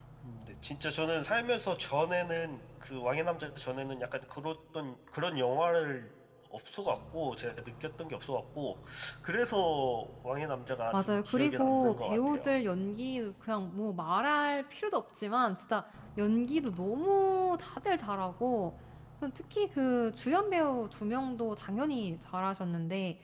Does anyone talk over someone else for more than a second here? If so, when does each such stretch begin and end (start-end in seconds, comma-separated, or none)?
10.9-12.5